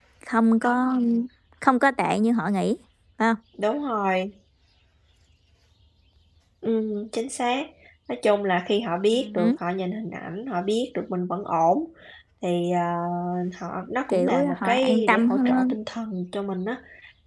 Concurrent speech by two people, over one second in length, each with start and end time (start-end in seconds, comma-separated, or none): 14.1-15.7